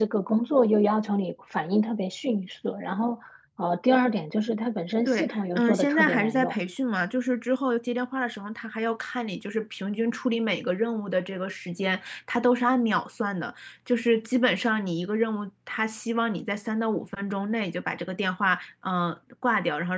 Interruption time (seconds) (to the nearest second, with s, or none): 5 s